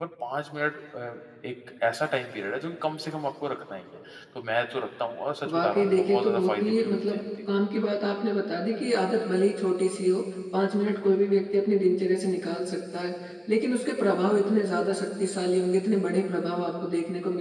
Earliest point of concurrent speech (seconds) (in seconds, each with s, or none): 5.5 s